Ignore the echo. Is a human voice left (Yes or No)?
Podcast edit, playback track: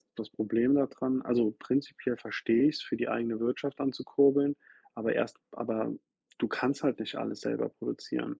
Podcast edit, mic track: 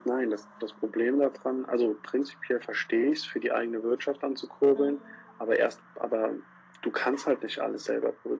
Yes